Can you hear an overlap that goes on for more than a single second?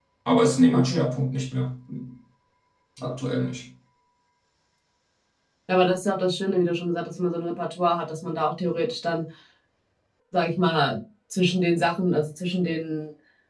No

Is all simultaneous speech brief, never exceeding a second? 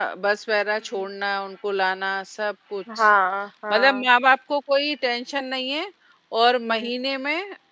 Yes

